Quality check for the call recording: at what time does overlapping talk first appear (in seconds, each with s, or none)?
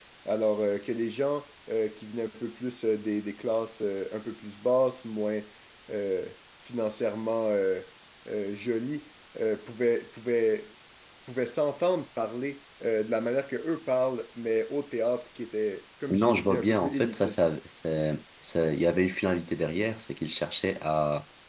16.1 s